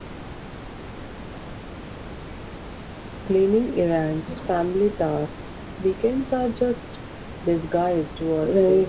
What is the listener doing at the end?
taking over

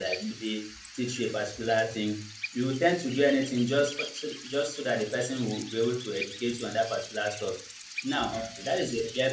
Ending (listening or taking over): listening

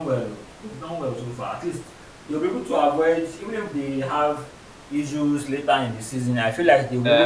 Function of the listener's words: taking over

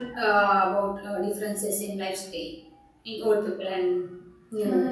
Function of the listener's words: taking over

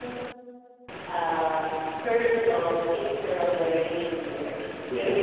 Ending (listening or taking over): listening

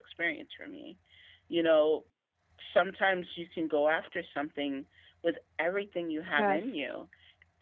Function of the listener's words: listening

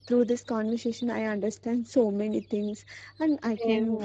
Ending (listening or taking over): listening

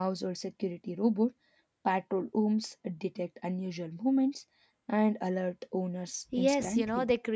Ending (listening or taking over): taking over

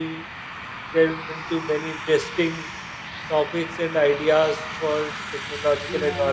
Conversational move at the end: listening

